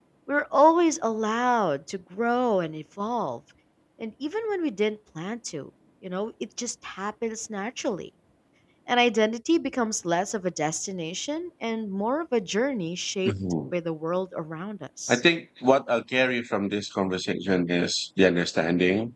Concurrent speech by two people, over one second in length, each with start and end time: none

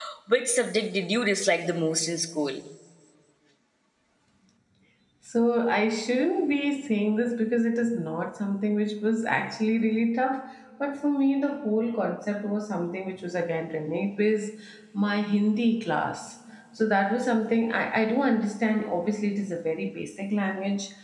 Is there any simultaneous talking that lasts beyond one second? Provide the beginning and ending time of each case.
none

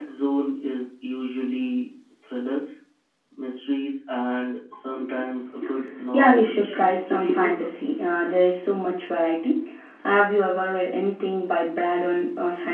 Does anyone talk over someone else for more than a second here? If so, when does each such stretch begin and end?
6.1-7.5

